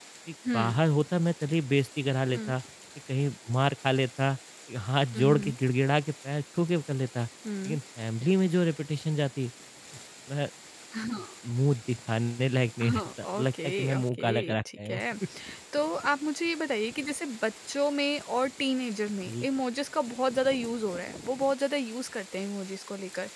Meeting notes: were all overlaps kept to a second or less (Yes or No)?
No